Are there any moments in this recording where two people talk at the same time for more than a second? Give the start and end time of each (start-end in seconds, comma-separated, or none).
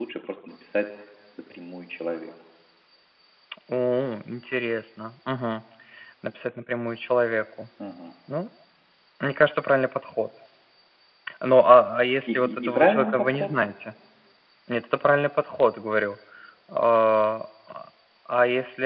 12.3-13.5